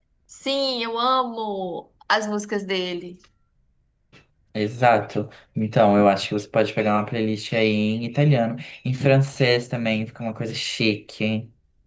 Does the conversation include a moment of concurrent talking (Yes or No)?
No